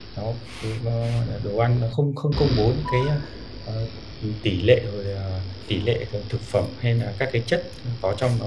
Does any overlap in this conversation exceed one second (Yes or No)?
No